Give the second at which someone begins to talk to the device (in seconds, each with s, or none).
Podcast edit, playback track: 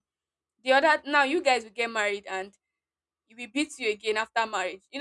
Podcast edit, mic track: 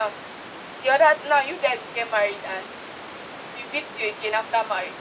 none